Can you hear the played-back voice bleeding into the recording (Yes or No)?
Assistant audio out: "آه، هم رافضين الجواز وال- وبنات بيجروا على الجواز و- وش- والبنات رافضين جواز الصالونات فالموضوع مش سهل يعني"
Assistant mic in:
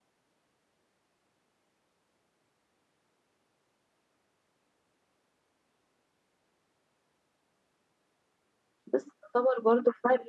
No